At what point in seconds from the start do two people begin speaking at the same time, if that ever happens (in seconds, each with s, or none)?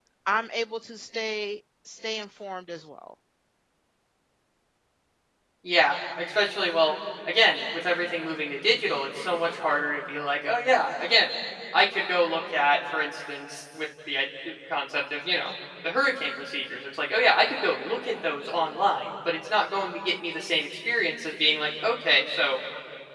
none